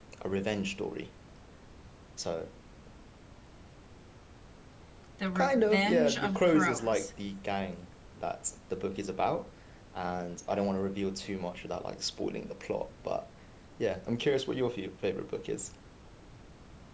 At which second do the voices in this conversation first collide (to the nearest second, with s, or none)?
5 s